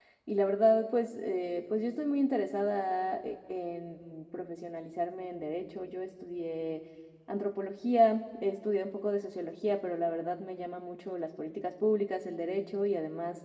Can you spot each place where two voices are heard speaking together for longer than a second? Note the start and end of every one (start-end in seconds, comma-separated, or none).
none